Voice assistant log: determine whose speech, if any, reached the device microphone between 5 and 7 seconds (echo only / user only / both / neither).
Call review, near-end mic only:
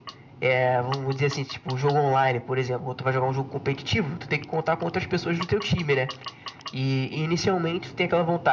echo only